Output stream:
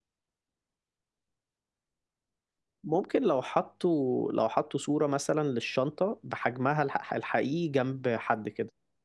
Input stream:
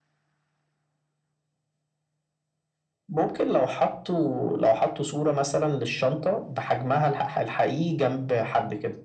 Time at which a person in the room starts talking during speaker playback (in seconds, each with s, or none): none